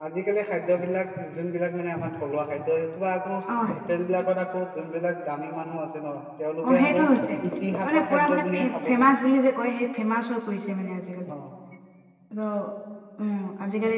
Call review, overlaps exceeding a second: present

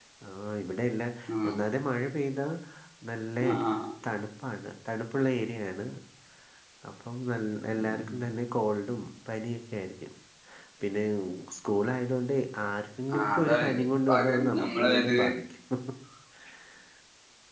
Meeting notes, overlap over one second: present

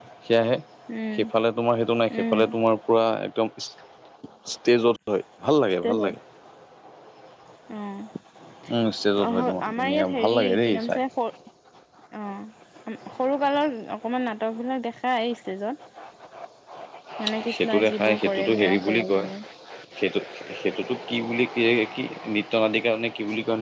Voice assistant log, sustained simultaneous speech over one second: present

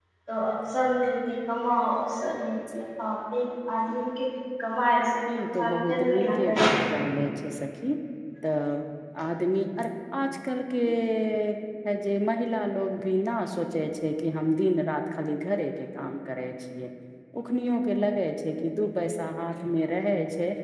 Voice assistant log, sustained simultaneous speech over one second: present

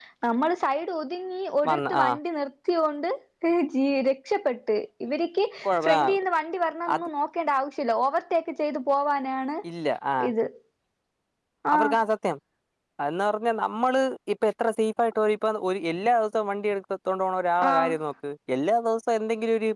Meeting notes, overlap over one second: none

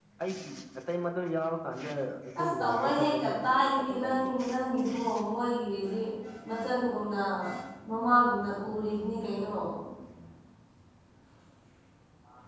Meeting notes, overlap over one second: present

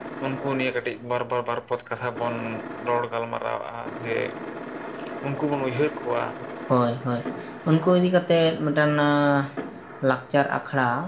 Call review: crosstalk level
none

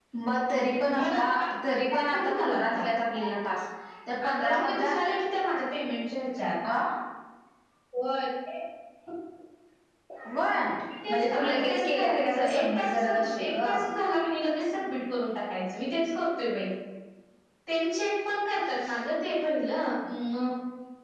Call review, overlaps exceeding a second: present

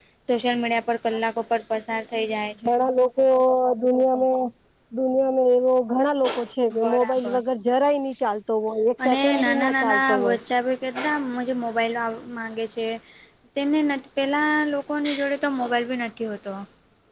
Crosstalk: present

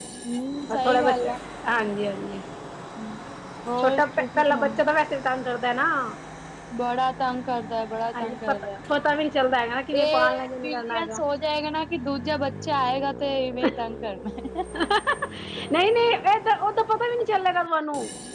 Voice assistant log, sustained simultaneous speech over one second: present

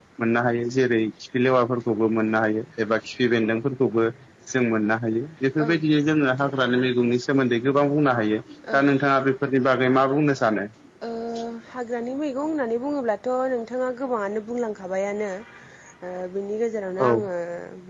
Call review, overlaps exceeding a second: none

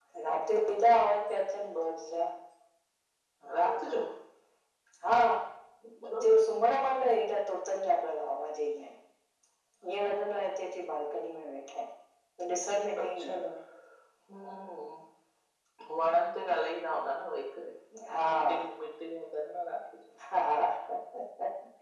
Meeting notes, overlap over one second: none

